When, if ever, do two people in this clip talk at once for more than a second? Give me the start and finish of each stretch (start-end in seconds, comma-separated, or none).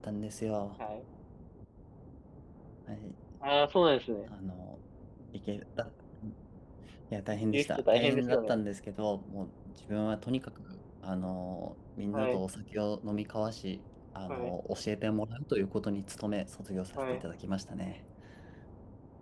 7.3-8.6